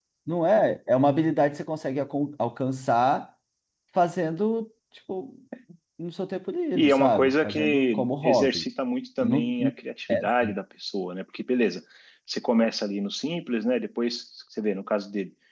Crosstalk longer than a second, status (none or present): present